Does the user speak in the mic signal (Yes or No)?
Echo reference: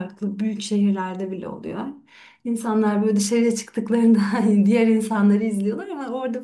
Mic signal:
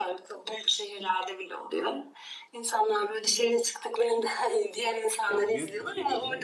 Yes